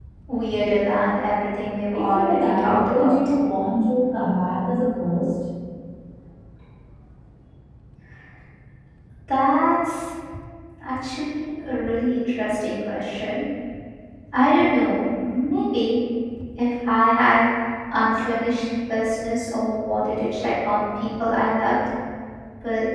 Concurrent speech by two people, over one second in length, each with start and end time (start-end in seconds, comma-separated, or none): 1.9-3.1